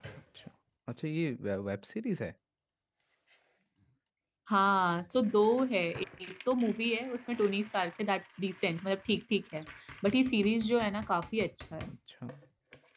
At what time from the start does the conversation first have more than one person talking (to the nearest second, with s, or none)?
none